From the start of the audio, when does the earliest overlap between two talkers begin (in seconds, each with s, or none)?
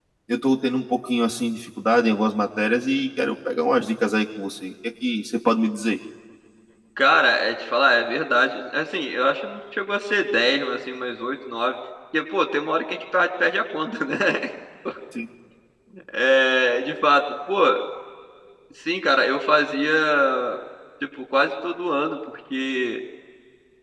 none